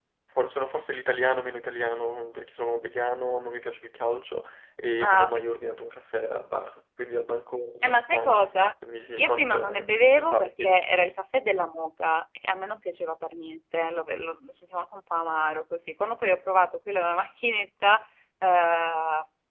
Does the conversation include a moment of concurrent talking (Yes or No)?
Yes